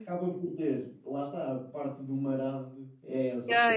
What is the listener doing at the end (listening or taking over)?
taking over